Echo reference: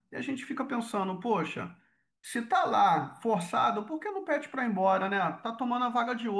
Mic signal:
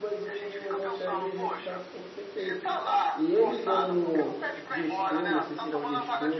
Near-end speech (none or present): present